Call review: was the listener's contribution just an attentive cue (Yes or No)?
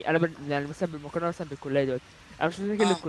Yes